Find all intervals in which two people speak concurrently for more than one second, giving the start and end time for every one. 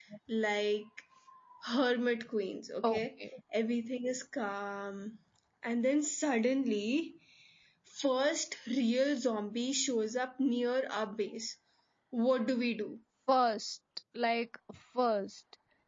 none

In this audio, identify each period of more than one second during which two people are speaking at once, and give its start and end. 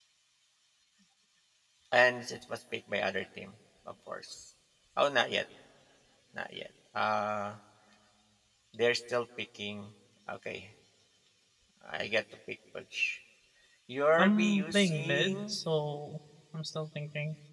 14.2-15.6

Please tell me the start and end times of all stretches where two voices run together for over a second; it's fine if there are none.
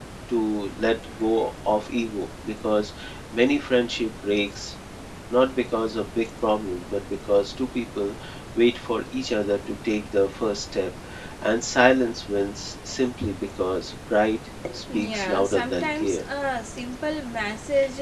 14.9-16.2

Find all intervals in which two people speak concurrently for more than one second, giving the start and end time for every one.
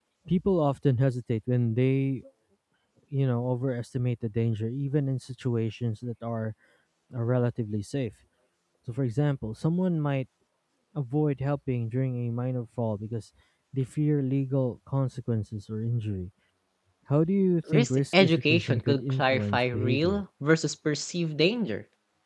17.7-20.2

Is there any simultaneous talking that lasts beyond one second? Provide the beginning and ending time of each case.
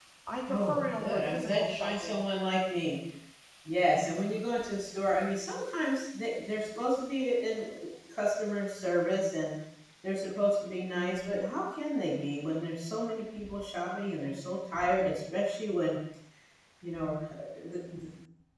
0.5-2.3

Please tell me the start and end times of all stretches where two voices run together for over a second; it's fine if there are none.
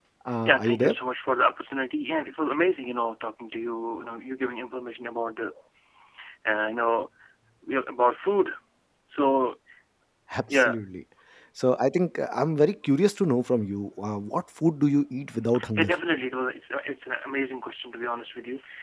none

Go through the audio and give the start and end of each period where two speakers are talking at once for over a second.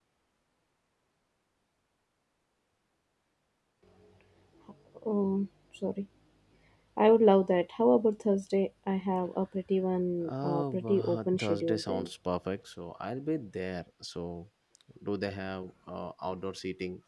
10.3-12.1

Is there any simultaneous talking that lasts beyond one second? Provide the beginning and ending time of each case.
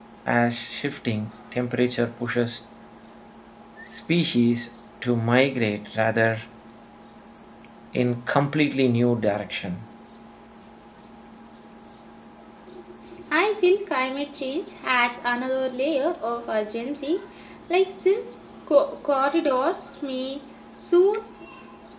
none

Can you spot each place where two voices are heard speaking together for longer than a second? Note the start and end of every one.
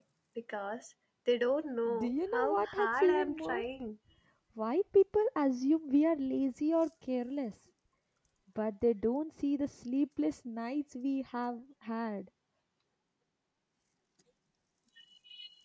2.0-3.6

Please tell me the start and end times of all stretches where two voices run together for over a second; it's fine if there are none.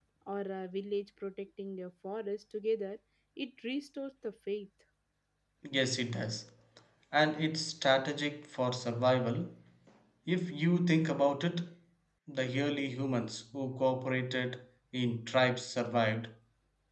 none

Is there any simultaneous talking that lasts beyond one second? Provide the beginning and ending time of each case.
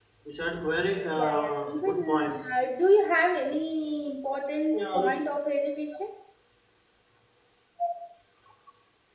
1.2-2.5

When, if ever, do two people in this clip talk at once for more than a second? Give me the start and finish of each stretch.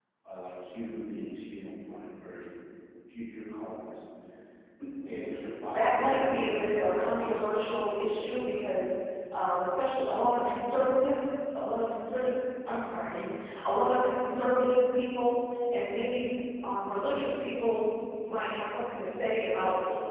5.7-7.5

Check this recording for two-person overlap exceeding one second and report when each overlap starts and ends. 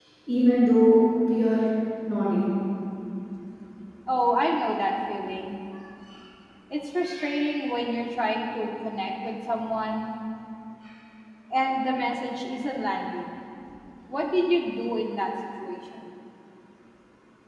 none

